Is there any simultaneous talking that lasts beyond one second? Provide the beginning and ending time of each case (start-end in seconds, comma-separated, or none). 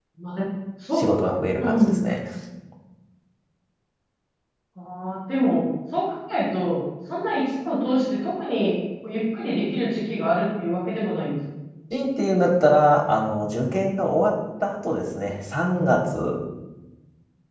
none